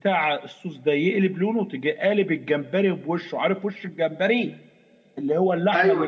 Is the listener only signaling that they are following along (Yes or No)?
Yes